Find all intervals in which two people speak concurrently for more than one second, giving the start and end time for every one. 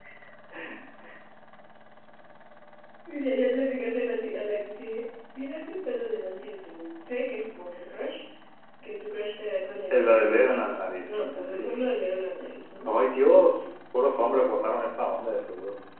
9.9-11.8

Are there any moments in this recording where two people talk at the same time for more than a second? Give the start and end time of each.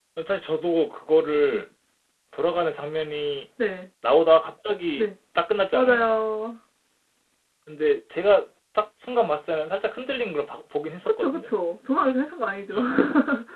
none

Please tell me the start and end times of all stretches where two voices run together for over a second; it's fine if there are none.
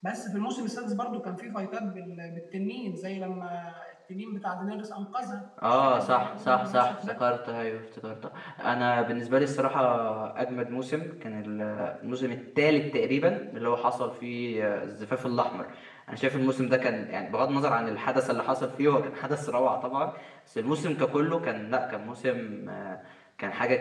5.7-7.2

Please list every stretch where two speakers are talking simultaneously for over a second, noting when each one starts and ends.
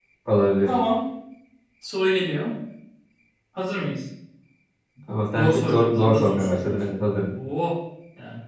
5.3-7.3

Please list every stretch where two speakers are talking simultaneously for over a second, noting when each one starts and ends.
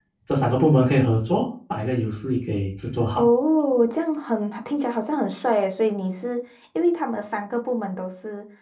none

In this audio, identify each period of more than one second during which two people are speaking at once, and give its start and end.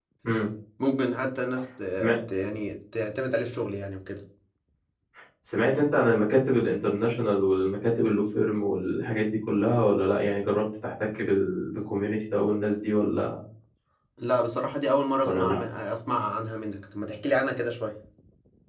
none

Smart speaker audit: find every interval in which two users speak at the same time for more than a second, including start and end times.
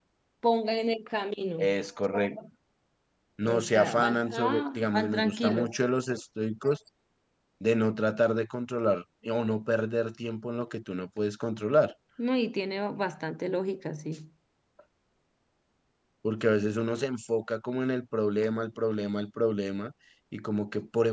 3.5-5.7

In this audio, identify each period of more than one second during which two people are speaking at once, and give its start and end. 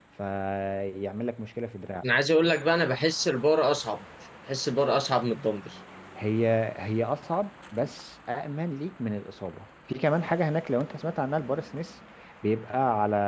none

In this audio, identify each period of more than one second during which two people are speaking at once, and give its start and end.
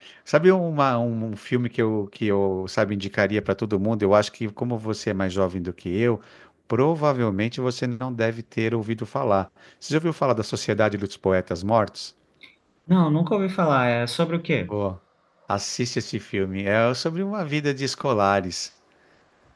none

